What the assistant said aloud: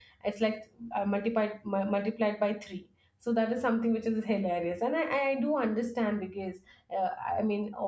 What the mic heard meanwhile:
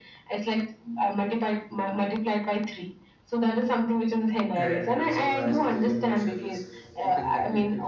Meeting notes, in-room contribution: present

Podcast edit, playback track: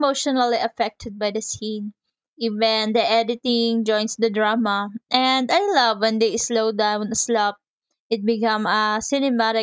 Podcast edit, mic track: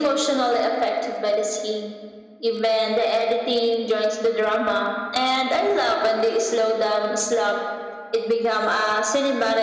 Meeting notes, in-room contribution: none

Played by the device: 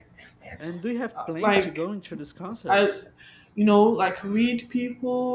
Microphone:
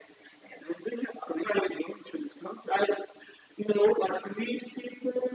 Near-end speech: none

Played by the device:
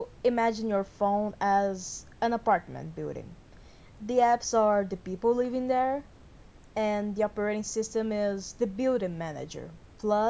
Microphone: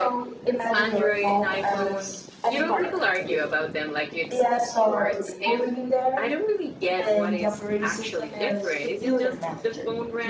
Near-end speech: present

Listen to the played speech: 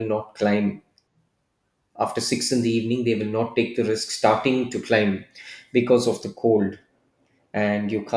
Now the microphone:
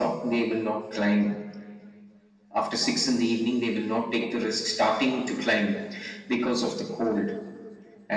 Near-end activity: none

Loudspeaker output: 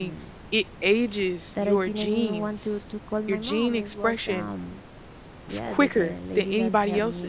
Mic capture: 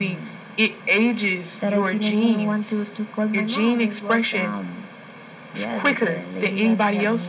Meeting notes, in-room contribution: none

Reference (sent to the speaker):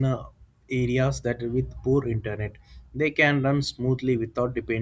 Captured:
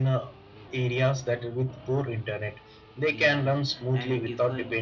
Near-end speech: present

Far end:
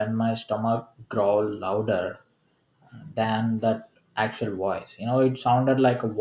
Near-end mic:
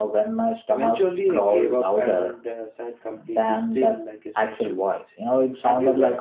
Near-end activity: present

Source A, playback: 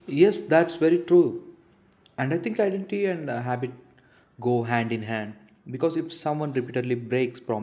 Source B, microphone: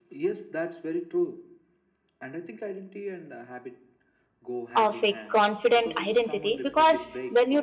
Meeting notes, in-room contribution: present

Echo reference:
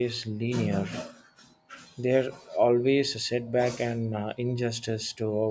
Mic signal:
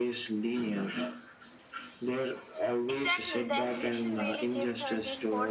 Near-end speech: present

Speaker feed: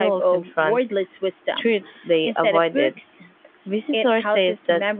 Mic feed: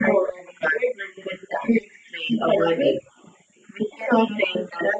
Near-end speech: none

